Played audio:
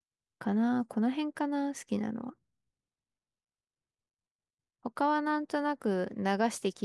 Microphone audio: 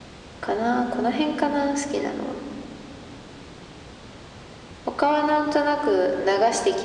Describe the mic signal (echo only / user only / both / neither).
echo only